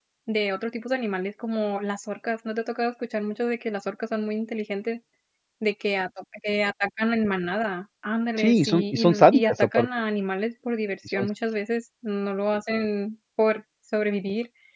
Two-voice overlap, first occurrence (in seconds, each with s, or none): 8.4 s